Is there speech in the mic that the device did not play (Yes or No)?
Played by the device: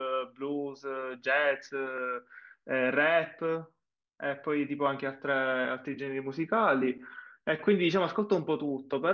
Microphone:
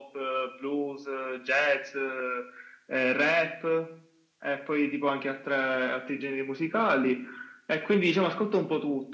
No